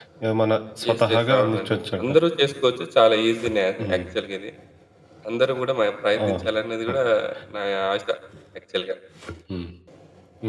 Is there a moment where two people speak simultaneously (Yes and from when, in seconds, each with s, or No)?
Yes, from 0.9 s